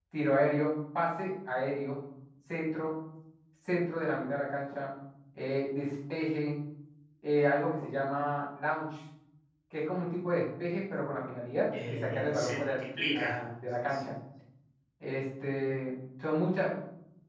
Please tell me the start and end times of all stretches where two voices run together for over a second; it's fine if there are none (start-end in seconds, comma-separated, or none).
11.7-13.4